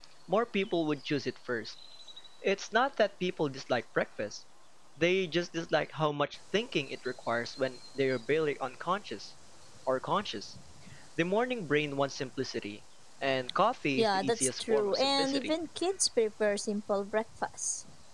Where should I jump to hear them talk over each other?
14.0 s

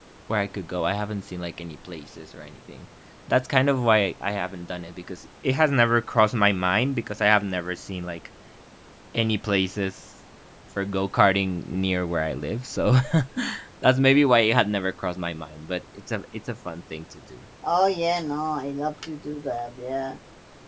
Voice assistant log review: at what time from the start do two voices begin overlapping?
none

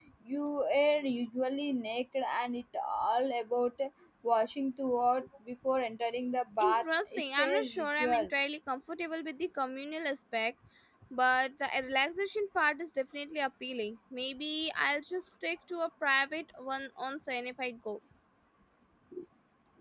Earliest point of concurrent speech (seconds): 6.6 s

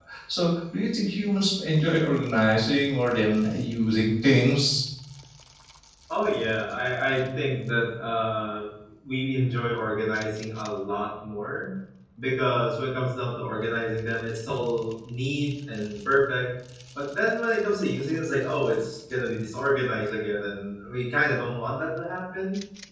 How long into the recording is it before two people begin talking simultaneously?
none

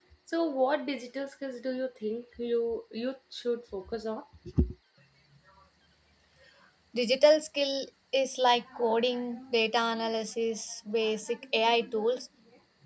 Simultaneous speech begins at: none

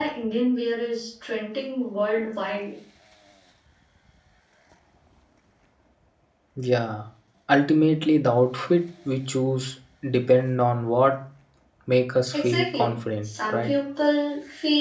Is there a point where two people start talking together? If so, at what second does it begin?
12.3 s

